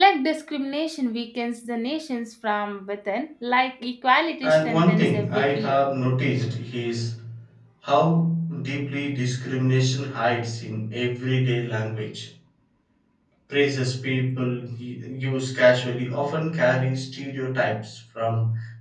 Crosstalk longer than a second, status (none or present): present